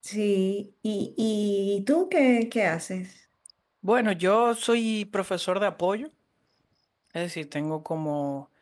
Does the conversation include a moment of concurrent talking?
No

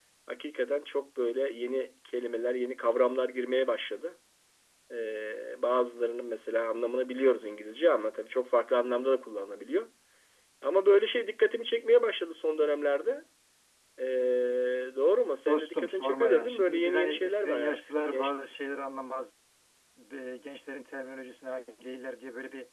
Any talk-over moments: Yes, from 15.4 s

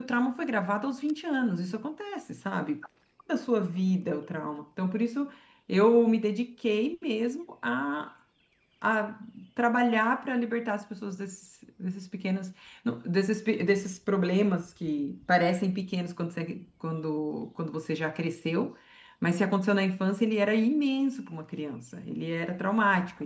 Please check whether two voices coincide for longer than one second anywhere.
No

